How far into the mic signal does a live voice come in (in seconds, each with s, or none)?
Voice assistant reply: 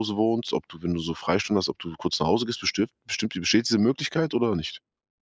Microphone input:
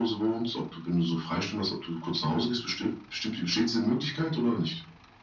none